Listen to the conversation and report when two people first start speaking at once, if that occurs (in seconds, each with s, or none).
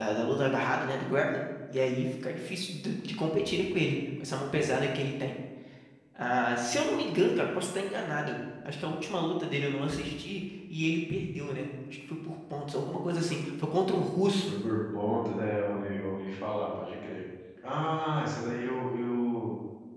none